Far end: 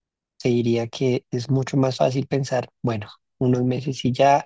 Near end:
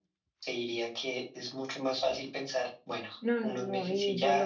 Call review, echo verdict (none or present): present